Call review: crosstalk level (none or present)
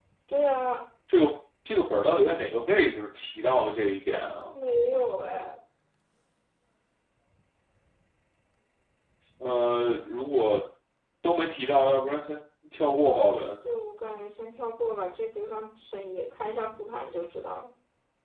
none